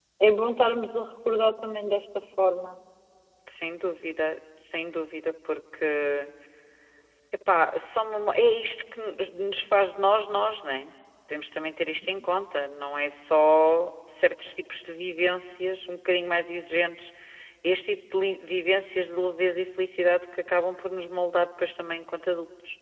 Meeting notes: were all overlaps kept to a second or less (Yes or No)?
Yes